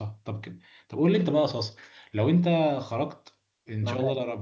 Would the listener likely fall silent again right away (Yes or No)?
Yes